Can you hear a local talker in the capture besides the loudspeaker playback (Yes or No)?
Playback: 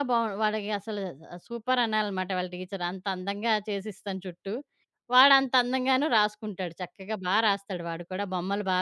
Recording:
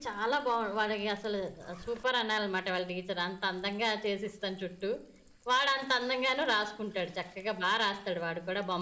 No